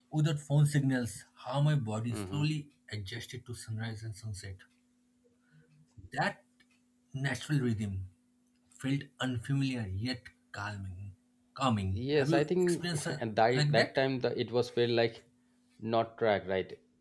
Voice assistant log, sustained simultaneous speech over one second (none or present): present